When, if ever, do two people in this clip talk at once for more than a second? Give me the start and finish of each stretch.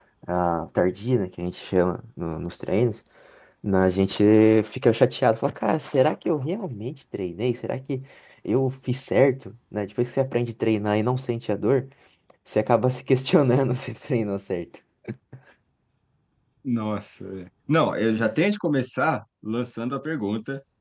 none

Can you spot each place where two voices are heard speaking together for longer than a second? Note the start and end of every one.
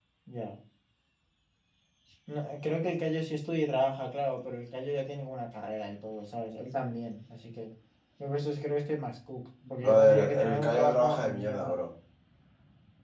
9.8-11.8

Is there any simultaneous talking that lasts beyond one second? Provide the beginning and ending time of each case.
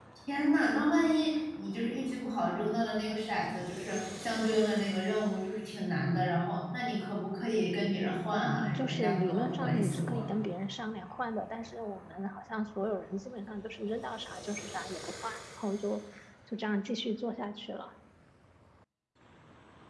8.3-10.3

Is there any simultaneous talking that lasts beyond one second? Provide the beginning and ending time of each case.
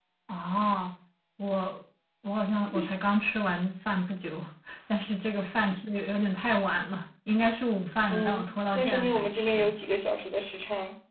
8.1-9.7

